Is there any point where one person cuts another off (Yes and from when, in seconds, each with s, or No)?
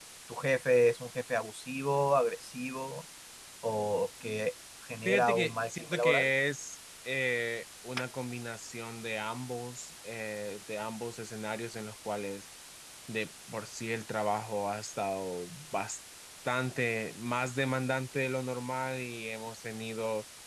Yes, from 5.0 s